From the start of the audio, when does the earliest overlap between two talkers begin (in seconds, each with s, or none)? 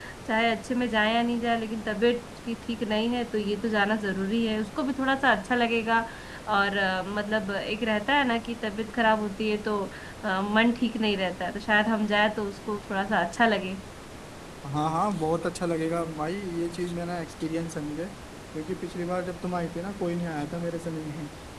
none